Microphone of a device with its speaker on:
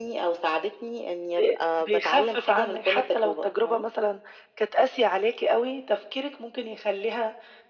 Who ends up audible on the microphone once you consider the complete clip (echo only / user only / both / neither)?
echo only